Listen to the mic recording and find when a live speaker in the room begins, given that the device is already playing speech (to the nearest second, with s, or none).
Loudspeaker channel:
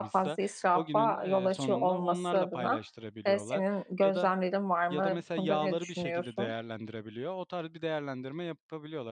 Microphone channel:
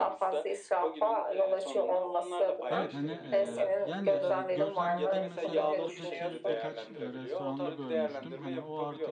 3 s